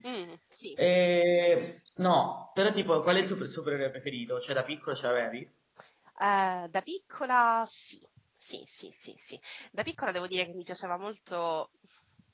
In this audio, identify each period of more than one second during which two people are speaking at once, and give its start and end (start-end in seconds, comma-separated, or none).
none